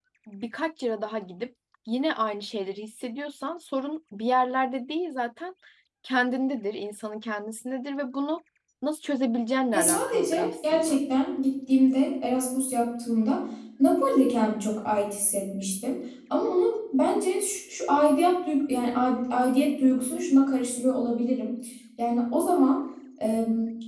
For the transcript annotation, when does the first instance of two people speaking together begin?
9.7 s

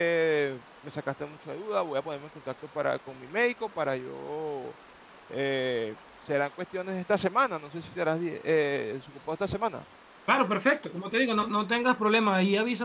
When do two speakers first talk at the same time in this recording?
none

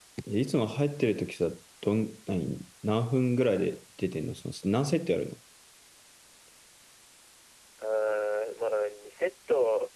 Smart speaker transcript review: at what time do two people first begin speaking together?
none

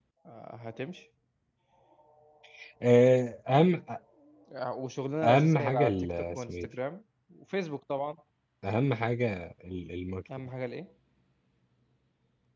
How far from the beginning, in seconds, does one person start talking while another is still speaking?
5.2 s

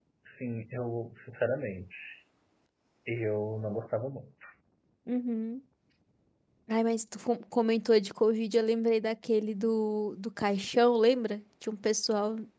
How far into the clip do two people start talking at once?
none

